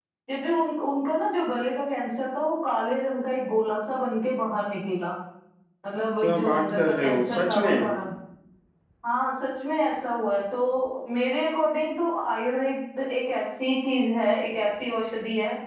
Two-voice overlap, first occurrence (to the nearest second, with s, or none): 6 s